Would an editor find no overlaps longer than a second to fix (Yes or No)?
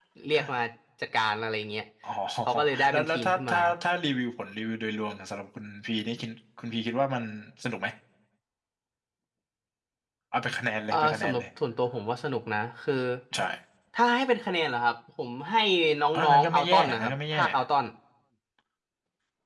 No